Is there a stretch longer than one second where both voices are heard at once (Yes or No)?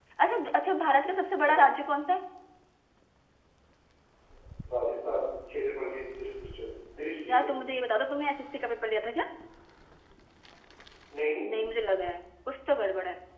No